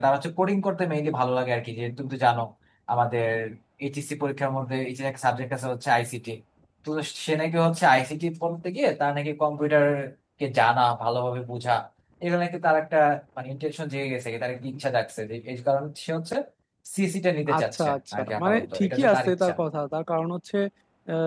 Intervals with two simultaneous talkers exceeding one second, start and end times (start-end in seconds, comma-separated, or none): 17.6-19.5